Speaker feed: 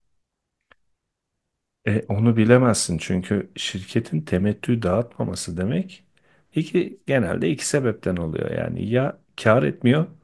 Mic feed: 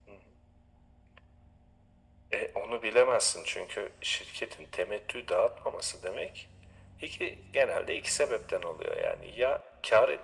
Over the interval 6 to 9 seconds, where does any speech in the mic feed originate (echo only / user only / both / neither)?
echo only